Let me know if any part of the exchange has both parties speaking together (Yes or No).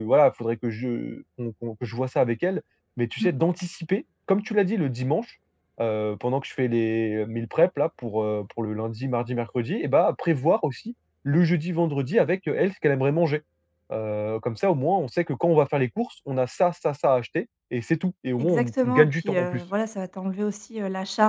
Yes